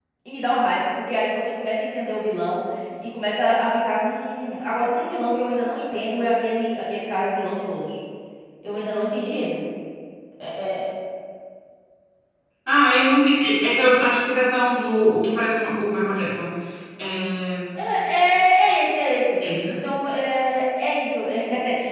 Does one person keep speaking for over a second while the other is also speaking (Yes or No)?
No